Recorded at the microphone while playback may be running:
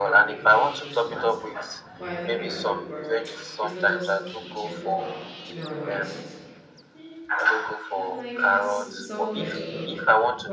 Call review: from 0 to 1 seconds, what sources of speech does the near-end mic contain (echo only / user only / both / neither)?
both